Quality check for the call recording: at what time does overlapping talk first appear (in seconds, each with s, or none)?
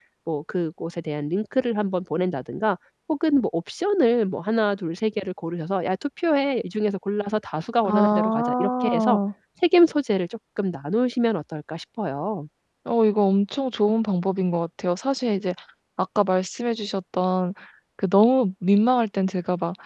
7.8 s